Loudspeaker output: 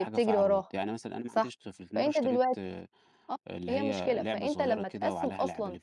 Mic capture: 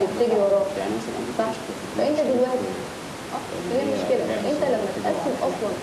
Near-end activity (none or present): none